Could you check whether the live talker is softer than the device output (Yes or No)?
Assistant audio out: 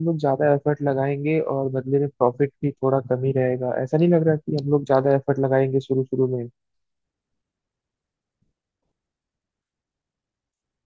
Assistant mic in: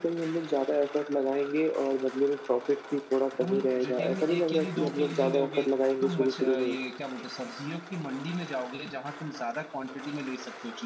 Yes